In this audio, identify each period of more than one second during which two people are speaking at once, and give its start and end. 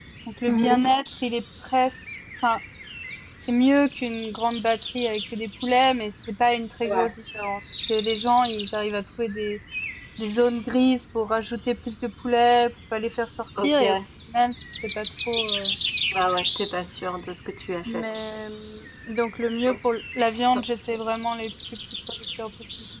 none

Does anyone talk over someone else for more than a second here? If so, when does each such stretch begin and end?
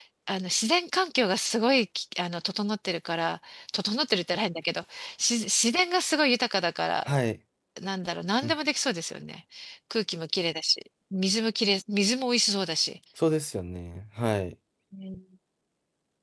none

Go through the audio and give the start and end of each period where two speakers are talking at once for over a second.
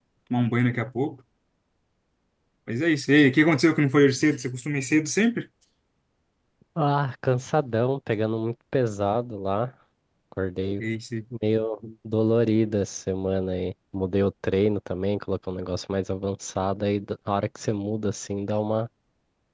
none

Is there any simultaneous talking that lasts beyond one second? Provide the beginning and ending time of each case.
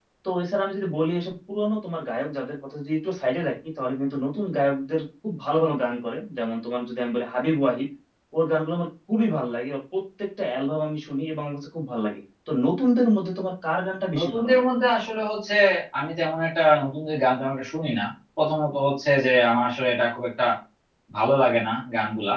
none

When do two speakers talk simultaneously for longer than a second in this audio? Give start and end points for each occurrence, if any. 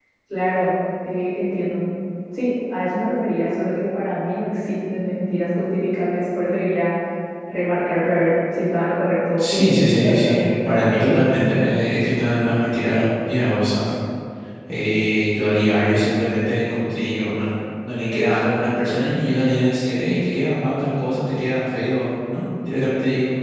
9.4-11.7

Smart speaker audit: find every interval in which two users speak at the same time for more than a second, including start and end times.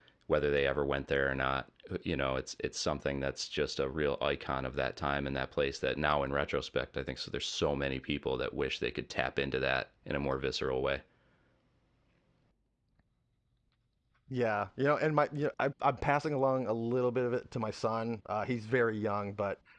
none

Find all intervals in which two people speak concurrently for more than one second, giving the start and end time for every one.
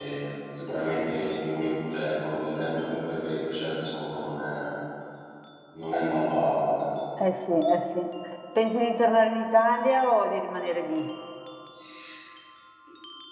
none

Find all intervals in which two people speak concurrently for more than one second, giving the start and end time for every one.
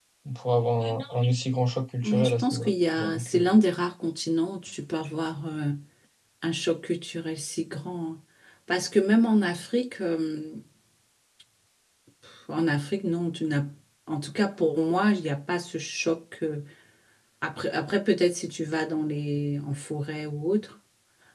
2.0-3.4

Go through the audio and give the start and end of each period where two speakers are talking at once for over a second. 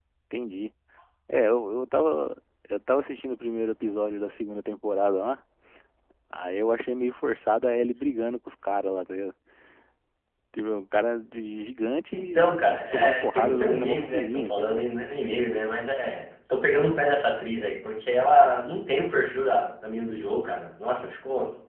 12.1-14.8

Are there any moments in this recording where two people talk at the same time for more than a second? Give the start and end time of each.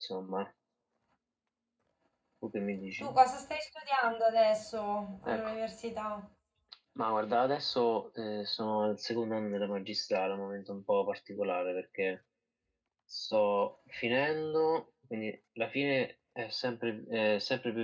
none

